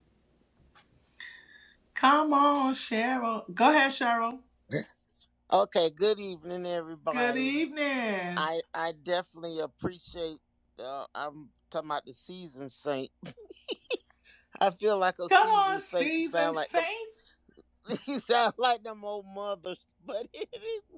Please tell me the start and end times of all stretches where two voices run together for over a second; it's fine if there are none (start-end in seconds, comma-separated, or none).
15.3-16.9